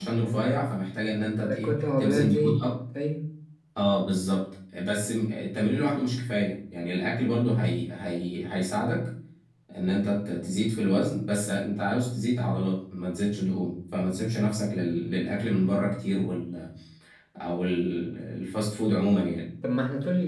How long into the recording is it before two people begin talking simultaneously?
1.4 s

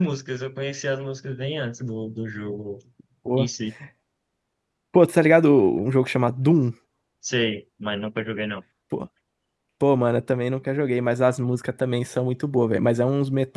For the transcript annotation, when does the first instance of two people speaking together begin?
none

